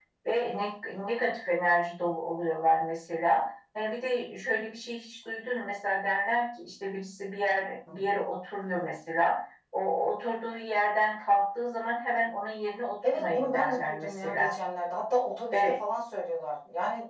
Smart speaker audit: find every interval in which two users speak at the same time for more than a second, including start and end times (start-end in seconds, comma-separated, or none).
13.1-14.5